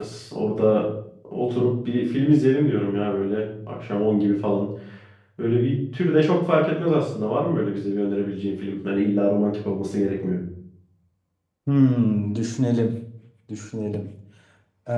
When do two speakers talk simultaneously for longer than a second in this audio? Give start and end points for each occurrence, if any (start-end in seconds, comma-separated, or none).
none